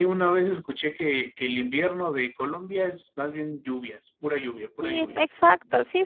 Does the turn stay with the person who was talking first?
No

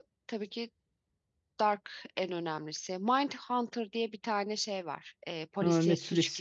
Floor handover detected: Yes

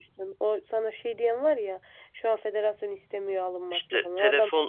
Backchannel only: No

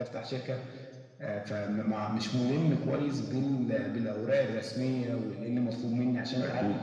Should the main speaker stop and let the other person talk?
No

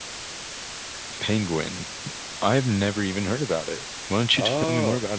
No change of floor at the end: No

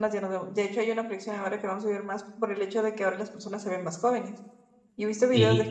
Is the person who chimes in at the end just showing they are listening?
Yes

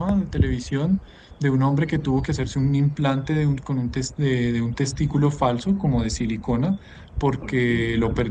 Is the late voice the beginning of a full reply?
No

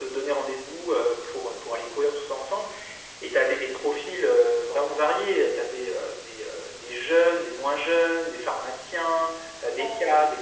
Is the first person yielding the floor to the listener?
No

